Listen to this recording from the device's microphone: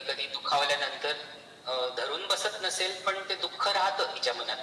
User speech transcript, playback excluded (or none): none